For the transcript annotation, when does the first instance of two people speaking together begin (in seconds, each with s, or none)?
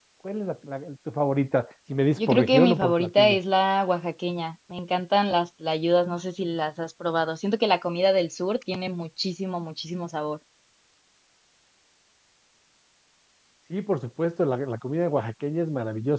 2.2 s